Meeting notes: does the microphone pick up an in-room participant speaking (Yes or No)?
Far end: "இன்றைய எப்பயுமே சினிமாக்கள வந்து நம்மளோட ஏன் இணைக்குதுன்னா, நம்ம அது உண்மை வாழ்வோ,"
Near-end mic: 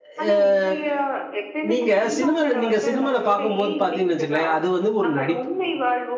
Yes